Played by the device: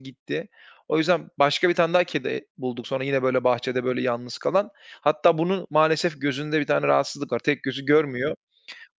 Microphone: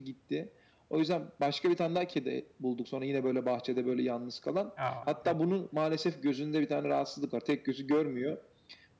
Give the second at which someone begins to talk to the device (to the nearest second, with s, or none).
5 s